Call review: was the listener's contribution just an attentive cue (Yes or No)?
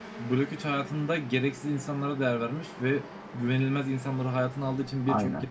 Yes